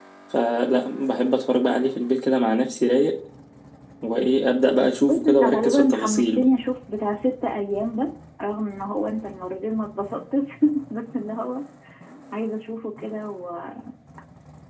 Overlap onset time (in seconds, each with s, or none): 5.1 s